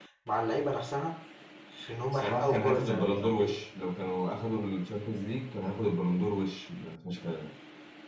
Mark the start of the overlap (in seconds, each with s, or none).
2.1 s